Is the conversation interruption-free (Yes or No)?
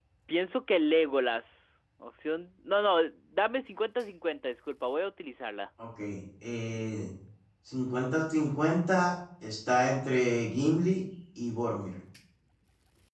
Yes